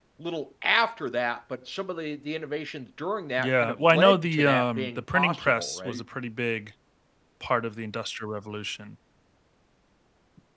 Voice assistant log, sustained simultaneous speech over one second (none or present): present